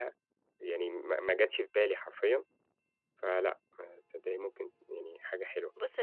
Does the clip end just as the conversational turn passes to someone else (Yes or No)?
Yes